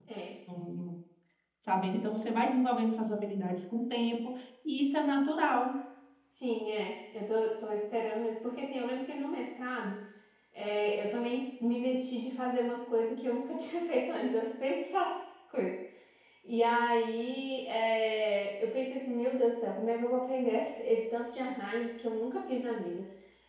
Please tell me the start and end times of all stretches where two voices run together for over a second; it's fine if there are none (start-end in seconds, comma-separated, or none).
none